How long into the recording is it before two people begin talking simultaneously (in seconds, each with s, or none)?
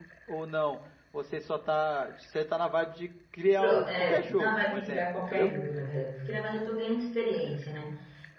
3.6 s